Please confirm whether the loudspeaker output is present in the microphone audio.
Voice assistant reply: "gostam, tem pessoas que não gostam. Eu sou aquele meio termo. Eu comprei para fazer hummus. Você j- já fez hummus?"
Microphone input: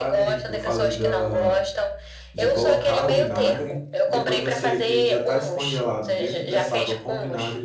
Yes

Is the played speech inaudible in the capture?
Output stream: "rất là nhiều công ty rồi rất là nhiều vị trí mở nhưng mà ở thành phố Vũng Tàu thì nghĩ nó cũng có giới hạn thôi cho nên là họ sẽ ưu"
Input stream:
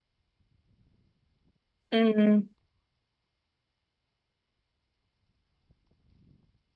Yes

